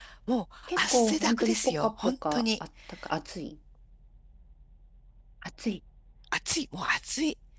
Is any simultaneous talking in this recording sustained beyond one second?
Yes, from 0.7 s

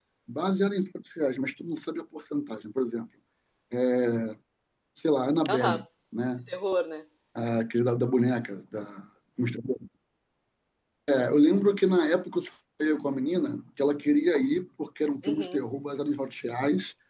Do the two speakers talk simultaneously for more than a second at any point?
No

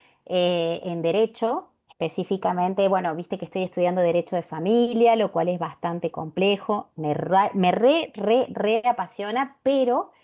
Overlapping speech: No

